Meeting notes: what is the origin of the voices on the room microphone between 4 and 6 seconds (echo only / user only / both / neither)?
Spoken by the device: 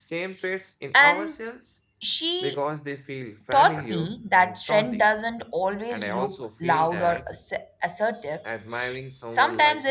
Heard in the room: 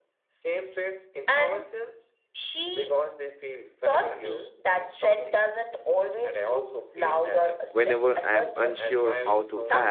echo only